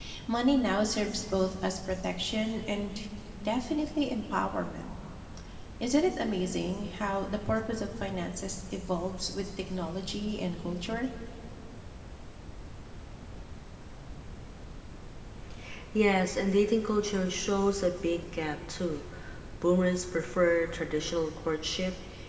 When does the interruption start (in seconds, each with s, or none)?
none